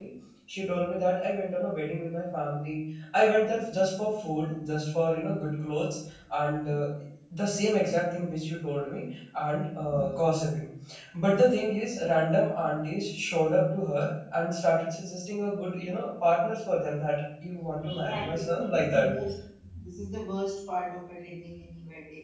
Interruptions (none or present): present